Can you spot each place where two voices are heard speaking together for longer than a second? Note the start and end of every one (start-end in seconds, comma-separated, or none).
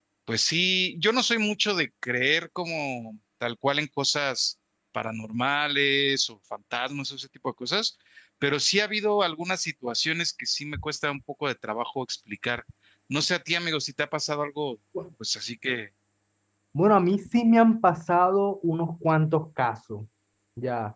none